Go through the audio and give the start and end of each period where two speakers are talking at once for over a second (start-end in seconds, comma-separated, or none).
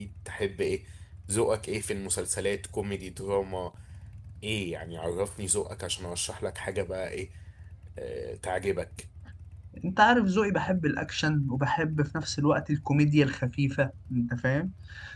none